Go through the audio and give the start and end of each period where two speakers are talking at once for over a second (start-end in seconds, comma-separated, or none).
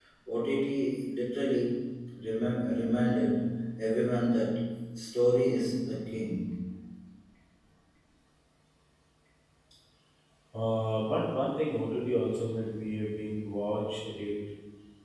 none